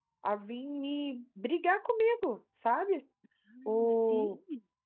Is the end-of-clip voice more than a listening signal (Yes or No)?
No